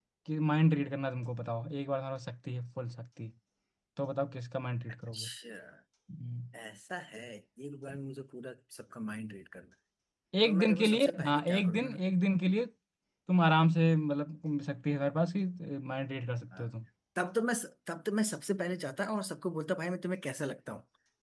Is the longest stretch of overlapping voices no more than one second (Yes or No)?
No